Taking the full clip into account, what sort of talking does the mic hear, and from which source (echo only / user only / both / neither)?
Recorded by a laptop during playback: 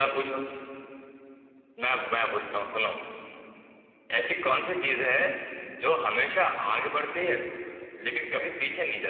echo only